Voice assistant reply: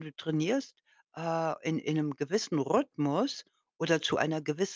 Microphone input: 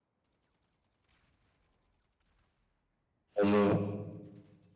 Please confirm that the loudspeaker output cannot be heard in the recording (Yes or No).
Yes